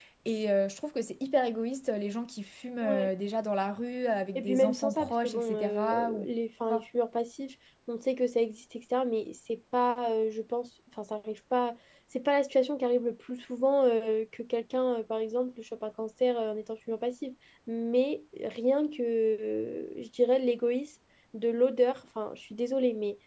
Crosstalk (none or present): present